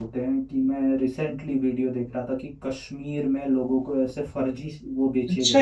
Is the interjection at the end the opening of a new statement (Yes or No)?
Yes